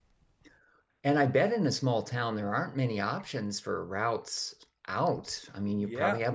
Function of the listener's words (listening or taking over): taking over